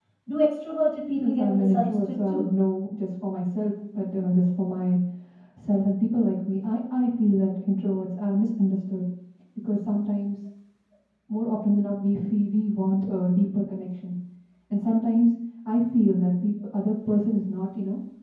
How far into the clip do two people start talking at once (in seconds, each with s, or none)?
1.2 s